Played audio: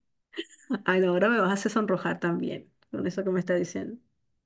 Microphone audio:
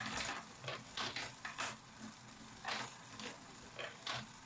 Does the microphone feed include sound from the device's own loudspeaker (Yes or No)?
No